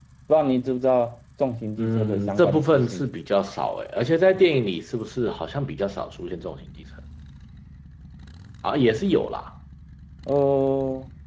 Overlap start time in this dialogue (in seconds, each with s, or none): 1.8 s